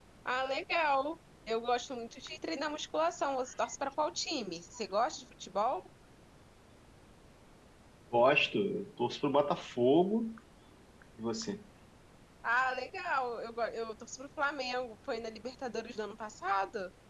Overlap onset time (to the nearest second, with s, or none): none